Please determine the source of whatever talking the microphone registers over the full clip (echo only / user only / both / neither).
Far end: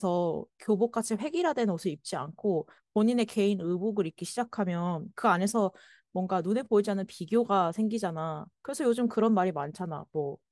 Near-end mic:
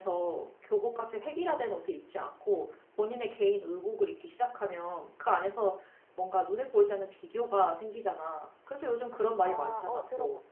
both